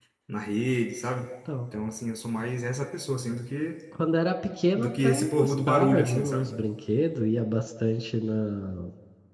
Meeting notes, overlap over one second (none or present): present